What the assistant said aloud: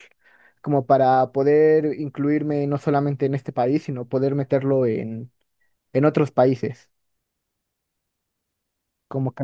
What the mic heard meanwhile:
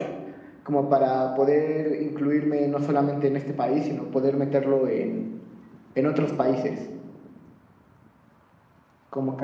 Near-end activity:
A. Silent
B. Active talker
A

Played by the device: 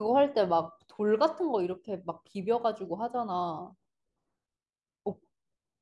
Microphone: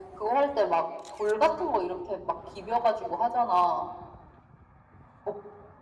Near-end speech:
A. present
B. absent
B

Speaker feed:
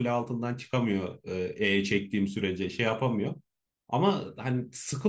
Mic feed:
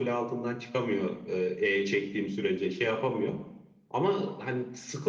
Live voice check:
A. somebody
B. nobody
B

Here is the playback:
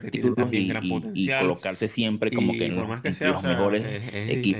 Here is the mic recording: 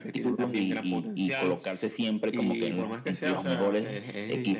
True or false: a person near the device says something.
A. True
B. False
B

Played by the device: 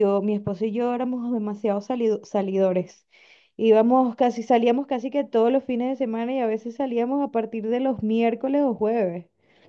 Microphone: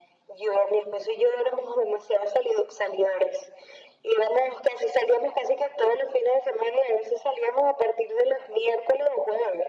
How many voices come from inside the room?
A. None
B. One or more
A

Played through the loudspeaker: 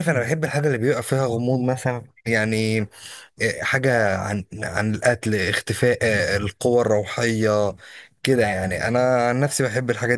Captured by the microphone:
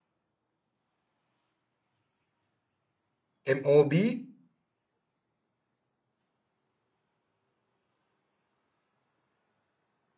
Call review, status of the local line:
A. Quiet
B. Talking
B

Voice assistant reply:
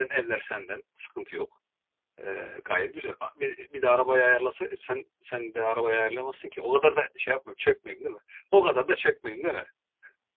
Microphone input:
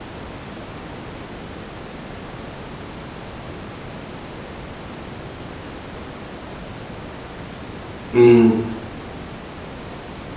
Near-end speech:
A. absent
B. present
B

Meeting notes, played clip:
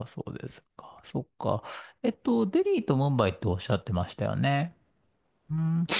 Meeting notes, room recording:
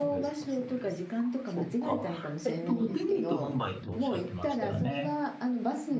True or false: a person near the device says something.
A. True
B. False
A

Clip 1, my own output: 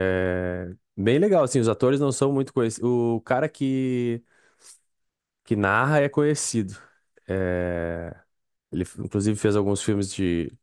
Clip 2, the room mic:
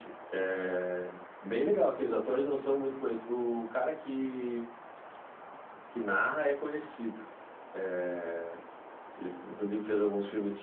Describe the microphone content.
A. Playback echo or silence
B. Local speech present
A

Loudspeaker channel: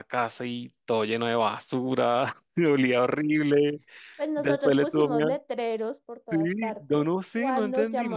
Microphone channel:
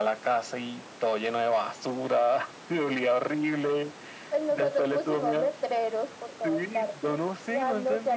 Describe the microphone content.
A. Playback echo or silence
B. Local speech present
A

